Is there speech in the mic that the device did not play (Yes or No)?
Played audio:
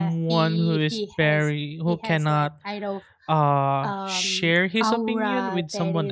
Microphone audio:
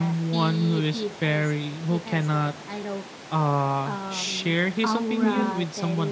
Yes